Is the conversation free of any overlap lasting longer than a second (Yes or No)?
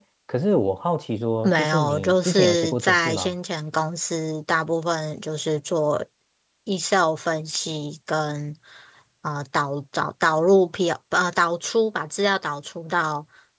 No